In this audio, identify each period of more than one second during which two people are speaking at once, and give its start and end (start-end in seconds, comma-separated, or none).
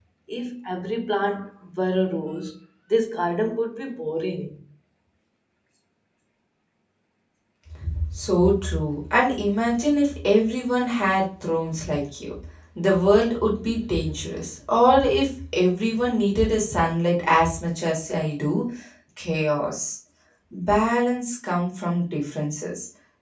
none